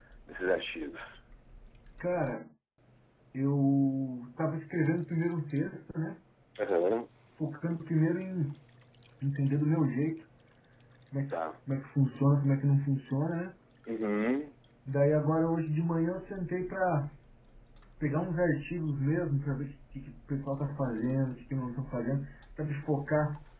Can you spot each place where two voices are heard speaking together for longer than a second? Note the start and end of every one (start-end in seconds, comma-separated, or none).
none